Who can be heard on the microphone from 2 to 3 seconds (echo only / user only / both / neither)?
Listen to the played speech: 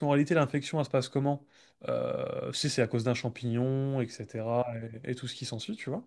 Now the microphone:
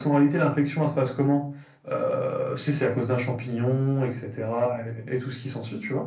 echo only